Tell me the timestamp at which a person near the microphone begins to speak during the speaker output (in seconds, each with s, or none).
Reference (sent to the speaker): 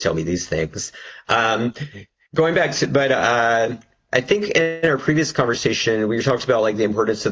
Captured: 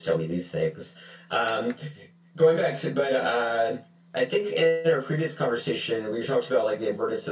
none